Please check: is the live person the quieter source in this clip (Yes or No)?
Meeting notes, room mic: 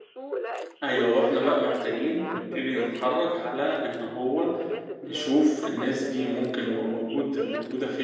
No